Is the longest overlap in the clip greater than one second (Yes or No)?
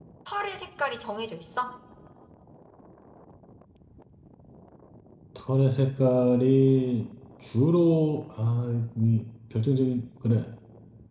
No